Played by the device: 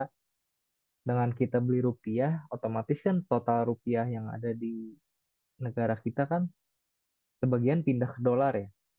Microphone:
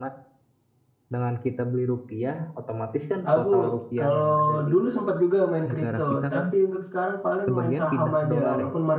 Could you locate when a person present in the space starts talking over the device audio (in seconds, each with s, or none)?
3.3 s